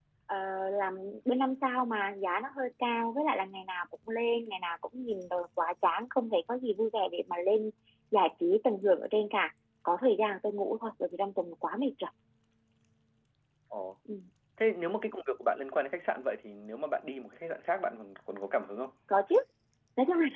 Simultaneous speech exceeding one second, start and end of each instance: none

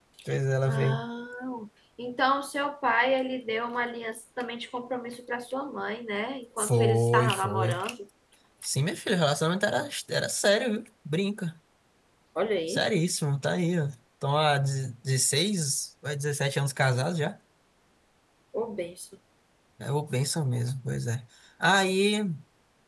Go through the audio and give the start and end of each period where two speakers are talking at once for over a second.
6.6-7.8

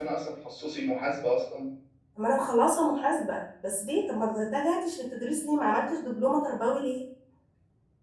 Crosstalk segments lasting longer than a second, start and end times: none

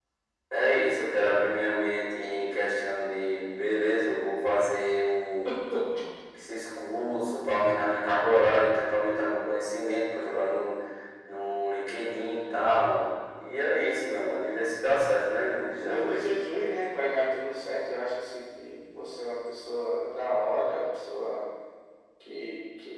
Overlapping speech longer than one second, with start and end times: none

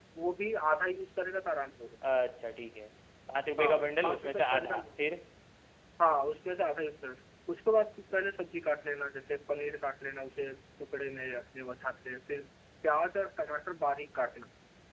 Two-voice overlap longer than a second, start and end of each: 3.6-4.8

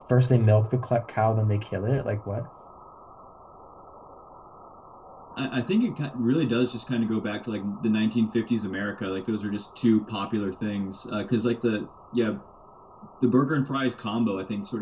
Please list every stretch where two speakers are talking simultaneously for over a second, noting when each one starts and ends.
none

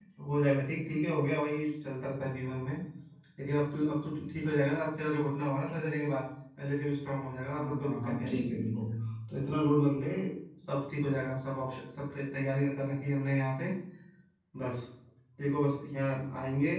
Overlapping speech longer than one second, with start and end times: 7.5-8.9

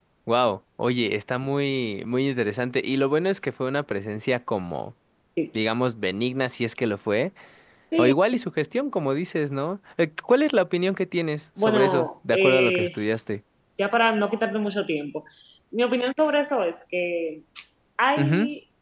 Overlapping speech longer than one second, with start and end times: 11.6-12.9

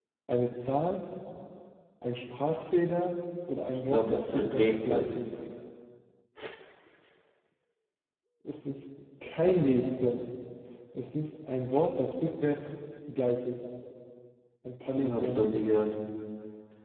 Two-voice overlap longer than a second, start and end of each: 3.7-5.0

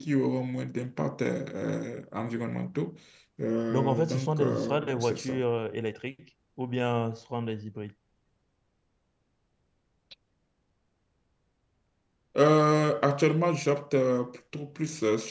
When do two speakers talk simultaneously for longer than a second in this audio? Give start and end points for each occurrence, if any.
3.7-5.4

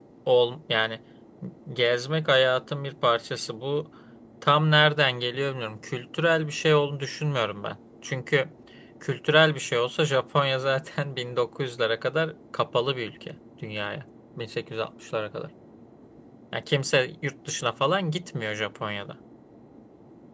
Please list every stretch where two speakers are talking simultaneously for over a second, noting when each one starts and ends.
none

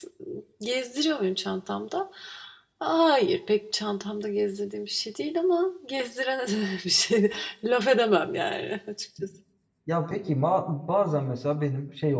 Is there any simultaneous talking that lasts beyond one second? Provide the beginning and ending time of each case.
none

